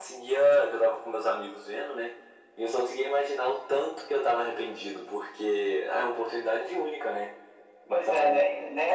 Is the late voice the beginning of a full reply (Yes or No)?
Yes